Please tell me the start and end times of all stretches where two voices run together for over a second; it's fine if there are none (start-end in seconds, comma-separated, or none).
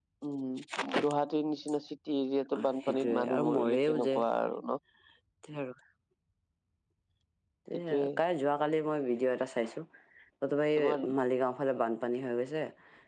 2.6-4.1